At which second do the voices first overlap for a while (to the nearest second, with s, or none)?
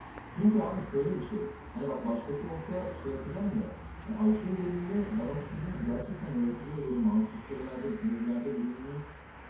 none